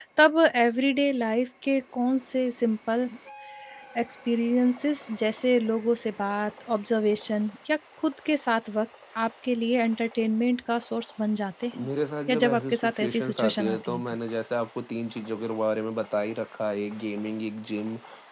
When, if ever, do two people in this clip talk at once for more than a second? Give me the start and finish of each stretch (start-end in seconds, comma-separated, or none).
12.3-14.0